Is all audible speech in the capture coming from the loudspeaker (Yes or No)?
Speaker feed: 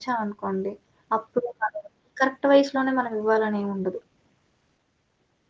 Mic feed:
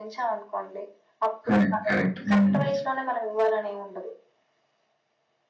No